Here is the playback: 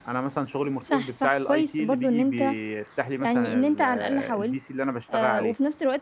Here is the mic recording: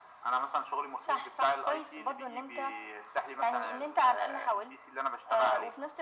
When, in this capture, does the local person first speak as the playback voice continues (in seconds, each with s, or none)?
none